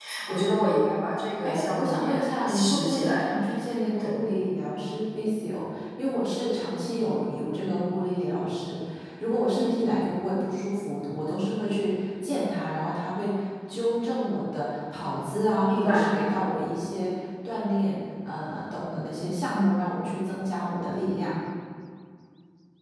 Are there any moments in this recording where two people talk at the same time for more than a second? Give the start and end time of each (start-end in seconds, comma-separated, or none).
1.4-3.3